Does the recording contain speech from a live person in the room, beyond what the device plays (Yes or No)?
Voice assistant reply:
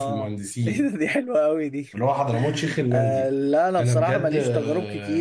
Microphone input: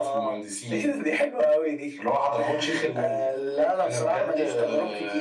No